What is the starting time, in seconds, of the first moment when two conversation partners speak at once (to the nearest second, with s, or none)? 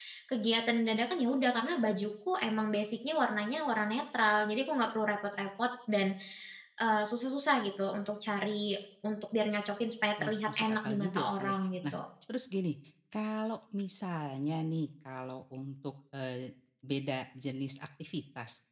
10 s